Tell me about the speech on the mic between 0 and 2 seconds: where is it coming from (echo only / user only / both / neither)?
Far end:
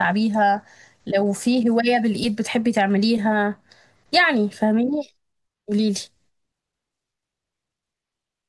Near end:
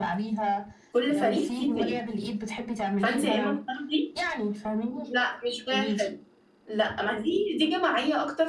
both